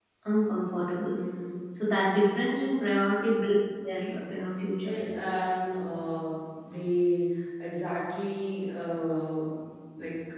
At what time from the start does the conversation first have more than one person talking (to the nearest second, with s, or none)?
none